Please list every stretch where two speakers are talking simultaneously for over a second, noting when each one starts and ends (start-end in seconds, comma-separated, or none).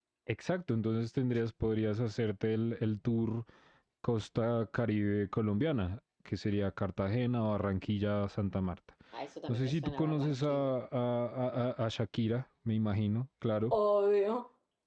9.5-10.7